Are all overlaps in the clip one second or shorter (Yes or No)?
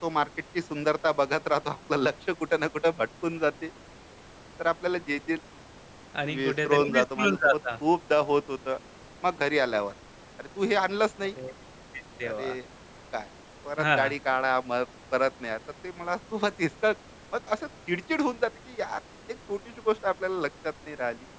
No